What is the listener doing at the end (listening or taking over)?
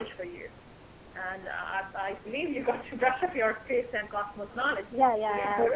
taking over